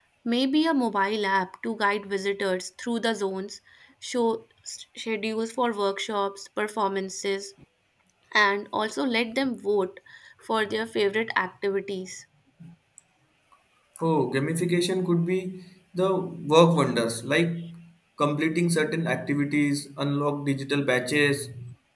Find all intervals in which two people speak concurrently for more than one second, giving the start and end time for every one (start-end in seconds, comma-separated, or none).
none